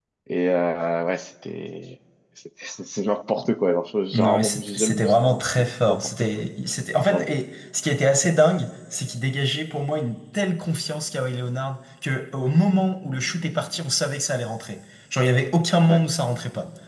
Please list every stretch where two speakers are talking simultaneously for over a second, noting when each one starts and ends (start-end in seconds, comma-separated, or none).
4.1-5.4